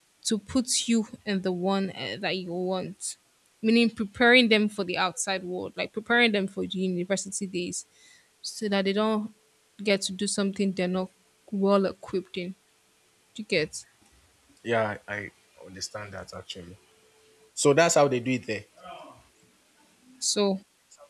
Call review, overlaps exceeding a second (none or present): none